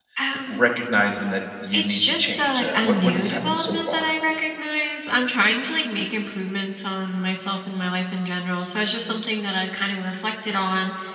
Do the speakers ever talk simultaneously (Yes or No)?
Yes